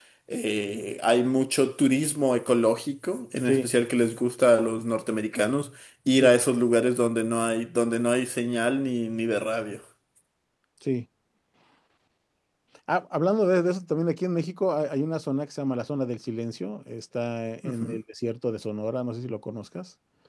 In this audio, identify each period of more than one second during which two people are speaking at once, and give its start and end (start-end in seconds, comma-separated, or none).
none